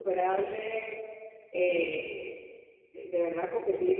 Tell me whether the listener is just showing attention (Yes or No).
Yes